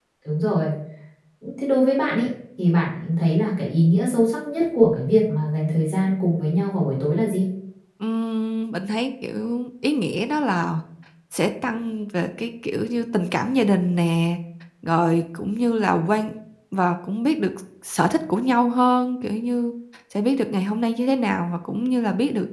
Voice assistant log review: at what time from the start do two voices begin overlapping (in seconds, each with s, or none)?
none